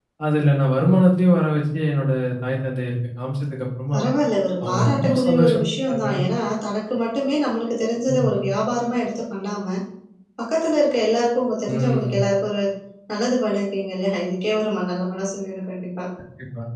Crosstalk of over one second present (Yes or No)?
Yes